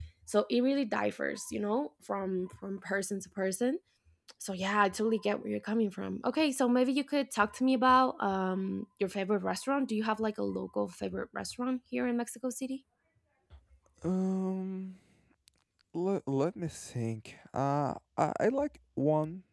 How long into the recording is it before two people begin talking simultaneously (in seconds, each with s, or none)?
none